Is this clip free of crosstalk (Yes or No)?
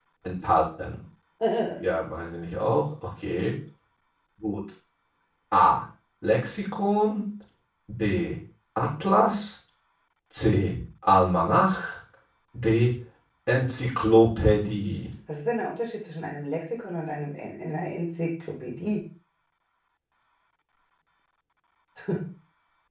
Yes